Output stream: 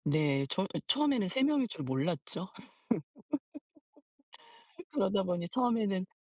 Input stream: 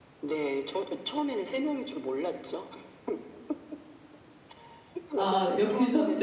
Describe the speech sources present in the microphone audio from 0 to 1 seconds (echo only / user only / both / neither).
echo only